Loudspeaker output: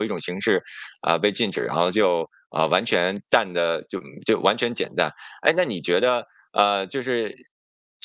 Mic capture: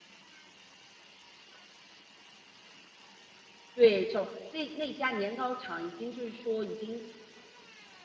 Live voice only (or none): 对，就那那家年糕厂已经就是说已经